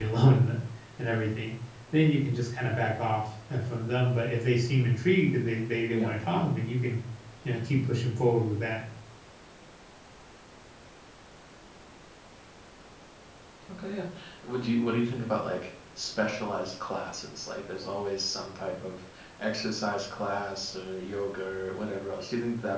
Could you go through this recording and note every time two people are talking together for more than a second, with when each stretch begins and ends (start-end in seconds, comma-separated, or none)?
none